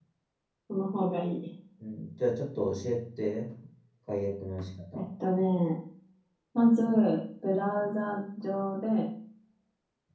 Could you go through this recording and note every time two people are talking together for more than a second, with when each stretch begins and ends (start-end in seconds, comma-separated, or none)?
none